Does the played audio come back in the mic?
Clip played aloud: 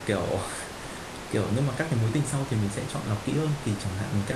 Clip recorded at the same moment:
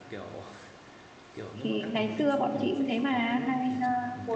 Yes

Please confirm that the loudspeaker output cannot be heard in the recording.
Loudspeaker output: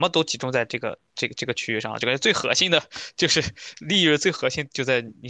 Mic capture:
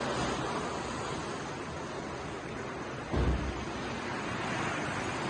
Yes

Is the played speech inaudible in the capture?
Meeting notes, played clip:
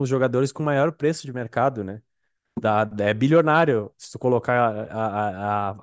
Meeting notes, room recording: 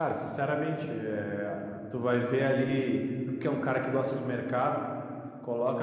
Yes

